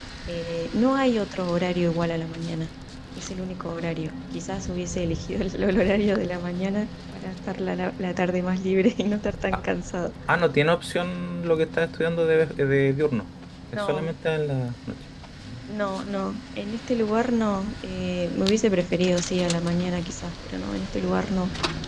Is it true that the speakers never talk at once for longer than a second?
Yes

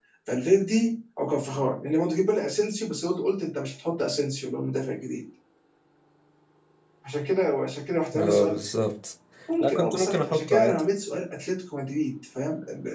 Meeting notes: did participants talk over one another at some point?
Yes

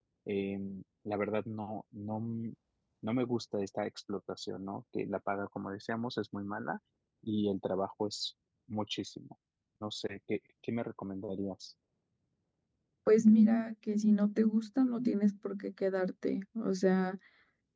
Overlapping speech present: No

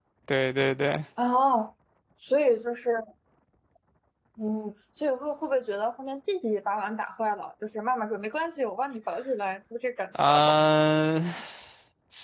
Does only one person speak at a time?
Yes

